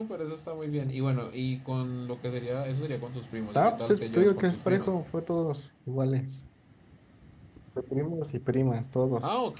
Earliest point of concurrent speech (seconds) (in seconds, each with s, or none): 3.5 s